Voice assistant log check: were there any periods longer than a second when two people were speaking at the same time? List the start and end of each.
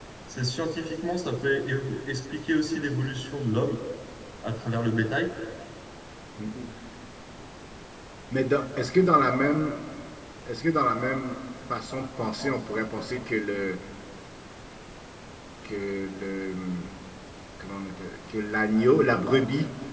none

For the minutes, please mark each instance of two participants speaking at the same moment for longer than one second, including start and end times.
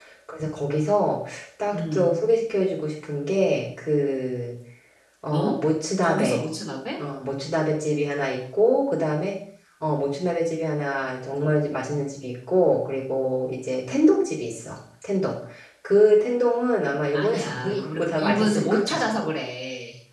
17.1-18.9

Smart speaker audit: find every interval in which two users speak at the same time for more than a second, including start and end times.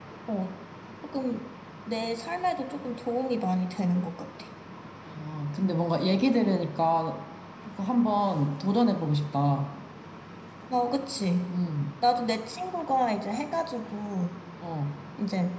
none

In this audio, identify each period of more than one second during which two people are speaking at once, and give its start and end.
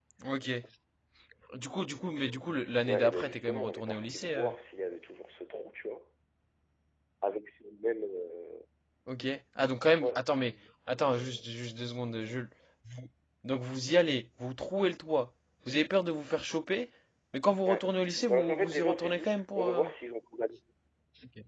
2.9-4.5, 18.3-19.9

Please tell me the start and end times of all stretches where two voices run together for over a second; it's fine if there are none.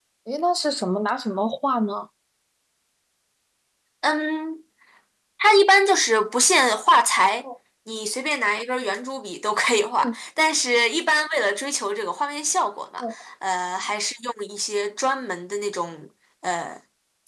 none

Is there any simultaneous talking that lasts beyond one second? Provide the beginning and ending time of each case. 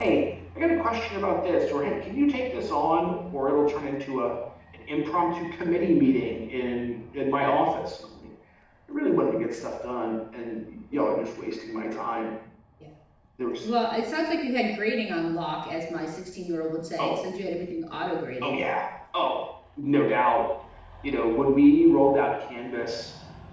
none

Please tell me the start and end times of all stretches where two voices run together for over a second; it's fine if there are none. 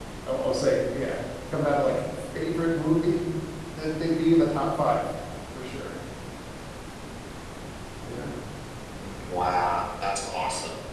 none

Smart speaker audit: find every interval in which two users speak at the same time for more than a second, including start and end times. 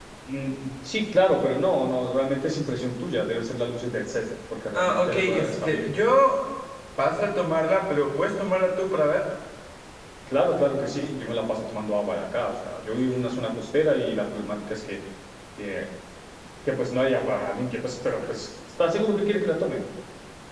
4.7-6.0

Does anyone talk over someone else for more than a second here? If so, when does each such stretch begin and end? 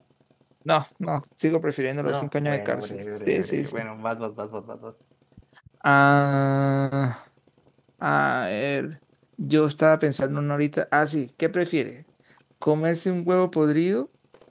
2.0-3.8

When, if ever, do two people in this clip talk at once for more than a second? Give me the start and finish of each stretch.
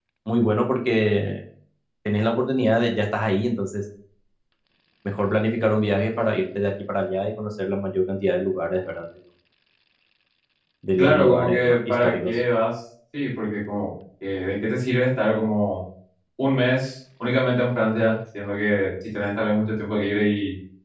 11.0-12.4

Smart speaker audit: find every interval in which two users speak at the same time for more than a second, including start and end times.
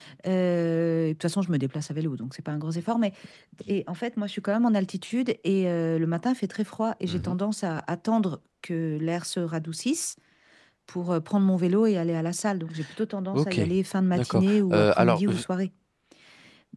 14.1-15.4

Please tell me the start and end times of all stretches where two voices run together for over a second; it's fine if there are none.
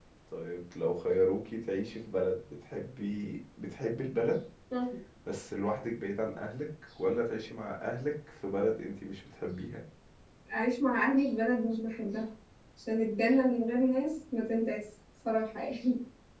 none

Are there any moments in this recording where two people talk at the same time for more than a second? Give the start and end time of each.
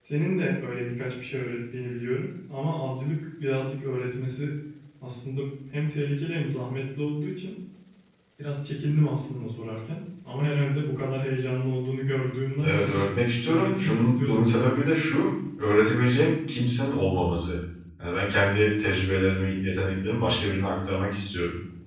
13.4-15.0

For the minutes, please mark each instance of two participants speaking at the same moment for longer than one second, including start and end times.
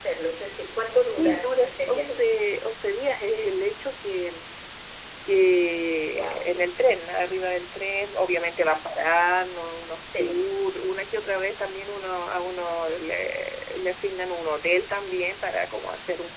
1.0-2.2

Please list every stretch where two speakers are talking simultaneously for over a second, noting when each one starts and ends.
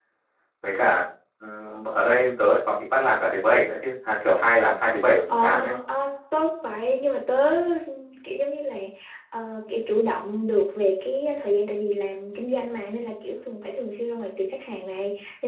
none

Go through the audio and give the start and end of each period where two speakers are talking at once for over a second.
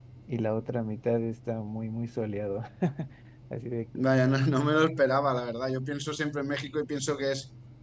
none

